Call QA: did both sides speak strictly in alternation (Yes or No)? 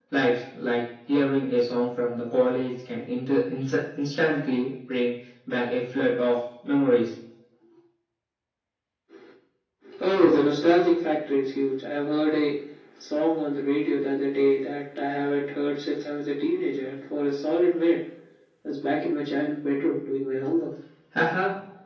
Yes